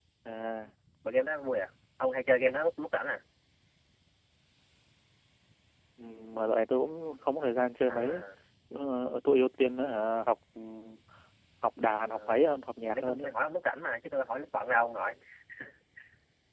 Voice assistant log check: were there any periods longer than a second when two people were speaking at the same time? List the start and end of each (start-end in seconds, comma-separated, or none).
none